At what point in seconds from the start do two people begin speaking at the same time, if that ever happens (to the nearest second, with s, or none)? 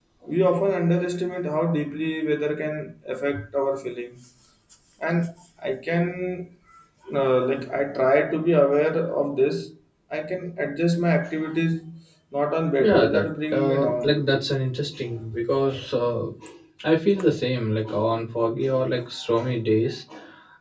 13 s